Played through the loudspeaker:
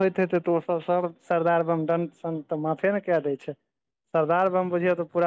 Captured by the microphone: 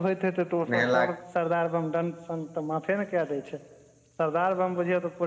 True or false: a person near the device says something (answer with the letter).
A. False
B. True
B